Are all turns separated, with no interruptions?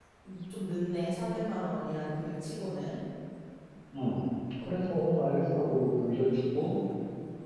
Yes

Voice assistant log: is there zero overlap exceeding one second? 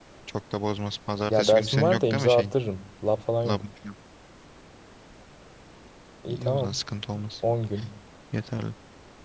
No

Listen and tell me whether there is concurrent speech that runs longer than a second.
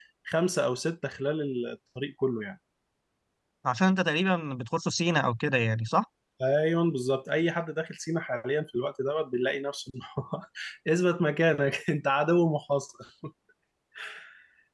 No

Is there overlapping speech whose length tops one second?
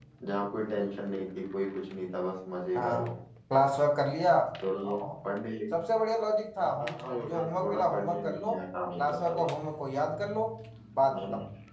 Yes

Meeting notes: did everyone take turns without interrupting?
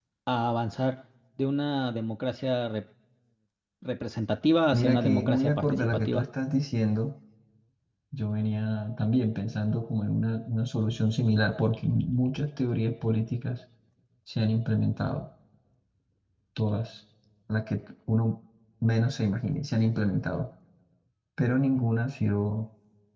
No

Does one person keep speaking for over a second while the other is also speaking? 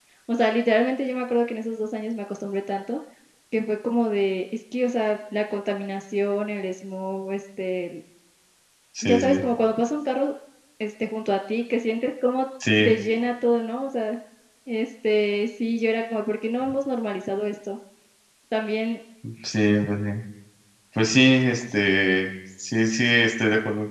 No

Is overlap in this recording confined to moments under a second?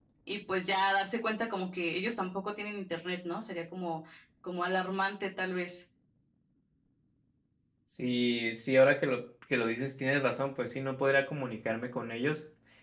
Yes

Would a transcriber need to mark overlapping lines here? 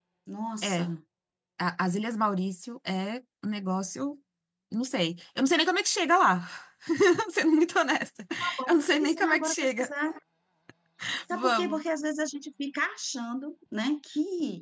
Yes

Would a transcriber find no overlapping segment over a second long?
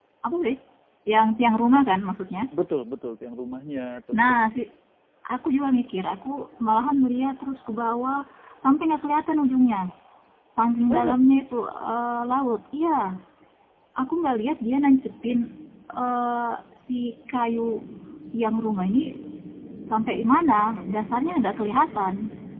Yes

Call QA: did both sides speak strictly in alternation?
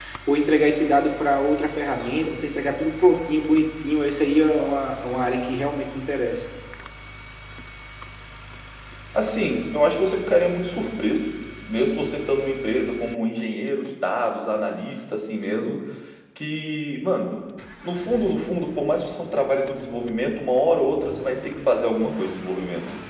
Yes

